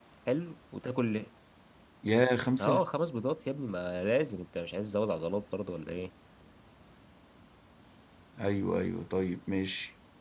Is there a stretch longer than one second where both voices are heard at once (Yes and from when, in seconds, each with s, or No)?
No